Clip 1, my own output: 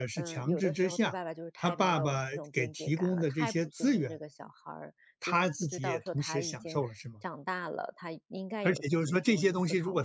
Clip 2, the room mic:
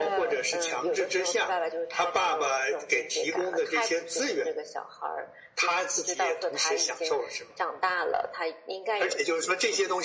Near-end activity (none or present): none